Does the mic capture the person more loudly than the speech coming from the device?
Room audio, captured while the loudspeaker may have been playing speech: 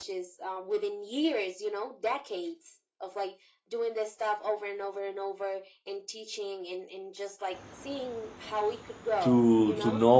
Yes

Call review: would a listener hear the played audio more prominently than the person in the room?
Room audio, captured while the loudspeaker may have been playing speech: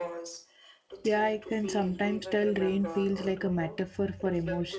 No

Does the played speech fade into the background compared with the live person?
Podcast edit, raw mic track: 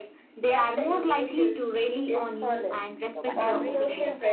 No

